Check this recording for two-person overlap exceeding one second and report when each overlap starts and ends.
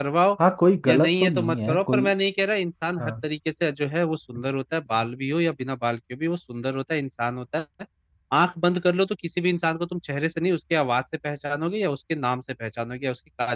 0.9-2.1

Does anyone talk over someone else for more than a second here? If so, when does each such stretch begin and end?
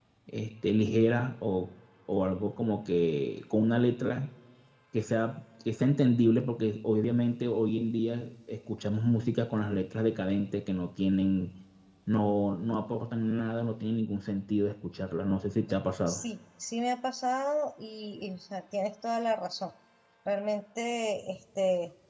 none

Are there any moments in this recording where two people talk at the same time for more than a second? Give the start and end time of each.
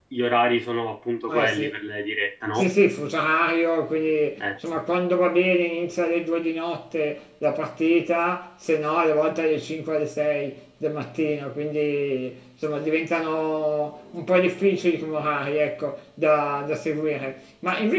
none

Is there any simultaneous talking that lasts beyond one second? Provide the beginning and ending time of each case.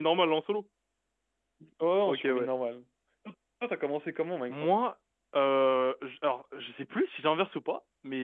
none

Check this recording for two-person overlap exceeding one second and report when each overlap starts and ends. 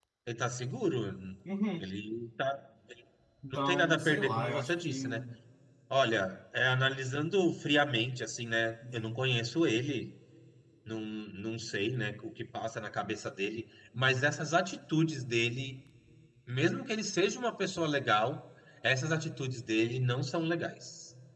3.5-5.2

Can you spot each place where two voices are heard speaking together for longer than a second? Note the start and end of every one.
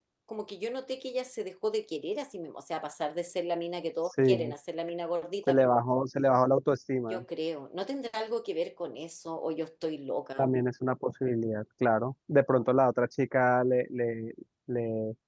none

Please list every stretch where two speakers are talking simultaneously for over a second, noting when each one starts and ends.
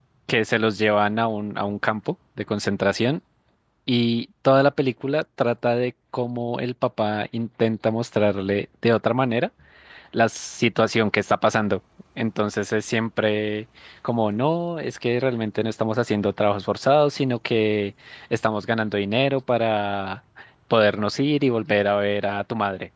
none

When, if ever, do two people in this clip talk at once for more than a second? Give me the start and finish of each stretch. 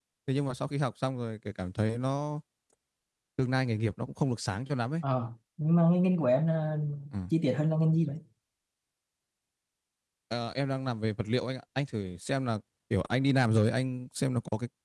none

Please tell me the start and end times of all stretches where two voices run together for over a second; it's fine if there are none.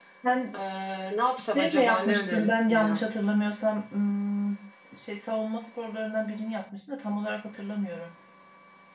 1.6-3.1

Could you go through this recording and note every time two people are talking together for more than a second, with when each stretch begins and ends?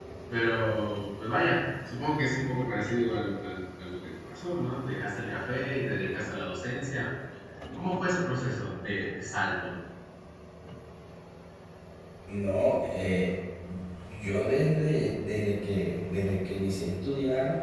none

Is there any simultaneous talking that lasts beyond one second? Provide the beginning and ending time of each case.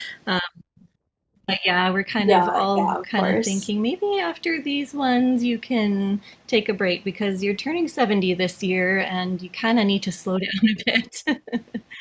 2.2-3.7

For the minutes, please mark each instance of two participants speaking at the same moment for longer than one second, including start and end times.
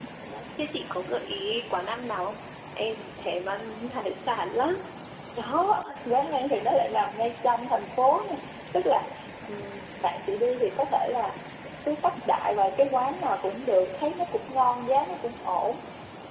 none

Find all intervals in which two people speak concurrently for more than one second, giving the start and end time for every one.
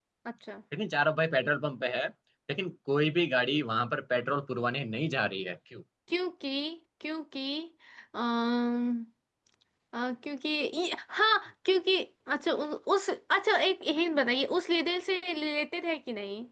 none

